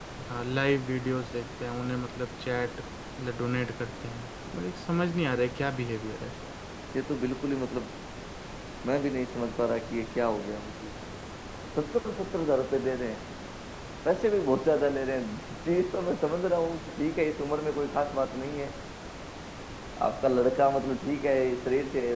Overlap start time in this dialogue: none

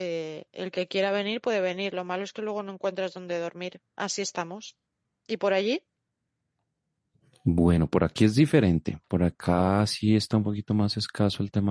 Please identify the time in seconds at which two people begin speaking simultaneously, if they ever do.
none

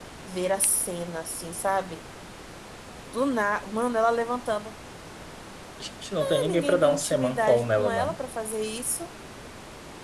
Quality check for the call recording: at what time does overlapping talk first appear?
6.2 s

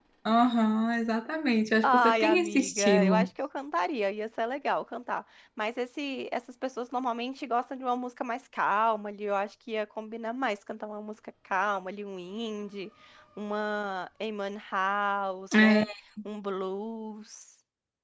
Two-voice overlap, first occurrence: 1.8 s

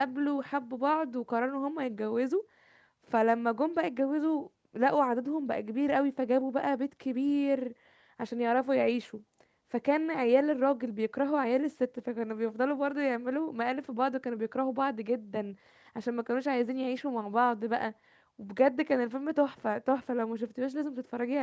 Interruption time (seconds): none

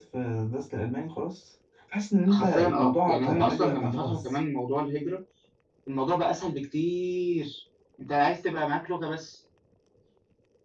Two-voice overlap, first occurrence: 2.3 s

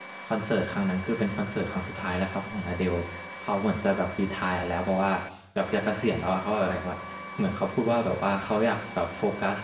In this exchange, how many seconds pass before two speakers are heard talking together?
none

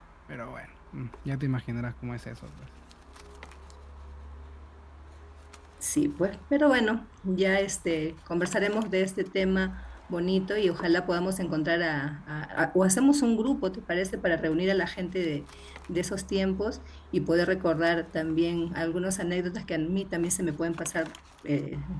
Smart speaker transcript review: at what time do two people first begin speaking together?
none

